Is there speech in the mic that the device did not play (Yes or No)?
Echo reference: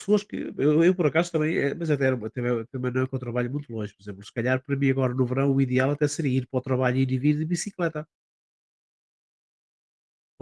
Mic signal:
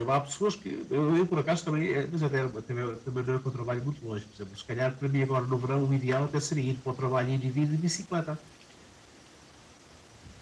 No